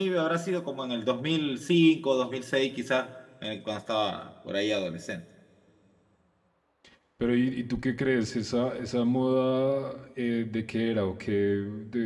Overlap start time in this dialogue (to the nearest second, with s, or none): none